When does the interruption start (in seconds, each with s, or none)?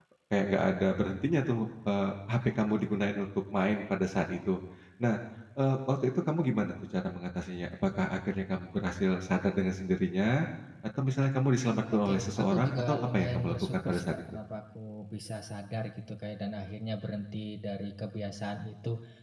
12.1 s